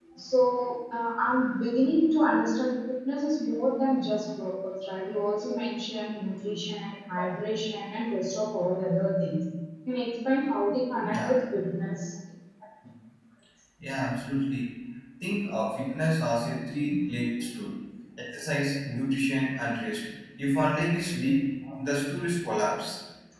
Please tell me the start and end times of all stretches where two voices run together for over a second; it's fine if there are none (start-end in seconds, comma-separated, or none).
none